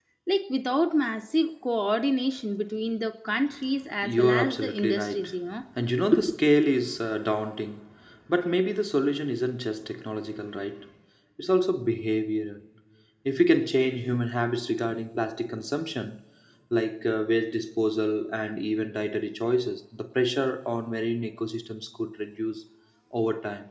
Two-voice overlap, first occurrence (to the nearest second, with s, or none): 4 s